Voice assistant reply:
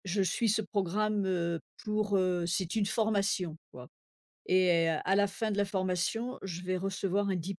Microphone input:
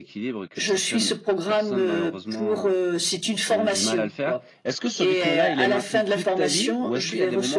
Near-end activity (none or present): present